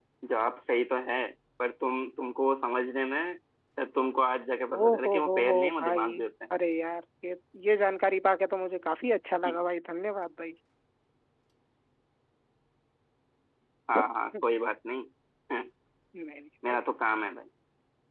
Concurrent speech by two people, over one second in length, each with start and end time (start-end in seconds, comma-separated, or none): 4.7-6.1